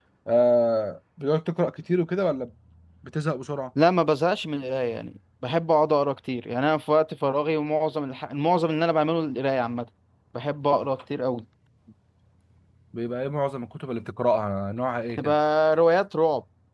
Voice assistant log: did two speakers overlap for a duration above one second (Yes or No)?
No